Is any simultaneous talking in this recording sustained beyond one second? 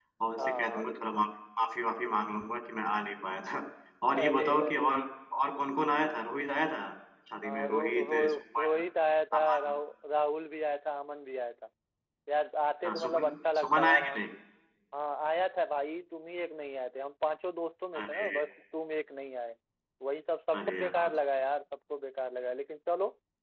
Yes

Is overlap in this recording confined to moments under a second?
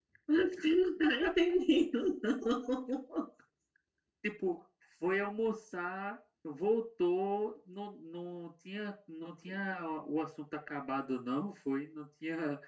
Yes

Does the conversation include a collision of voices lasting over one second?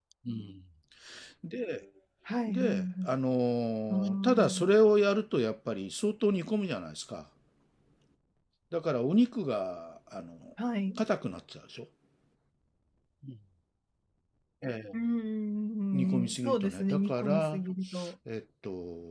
Yes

